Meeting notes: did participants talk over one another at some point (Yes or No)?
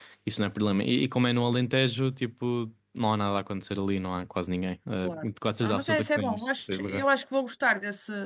Yes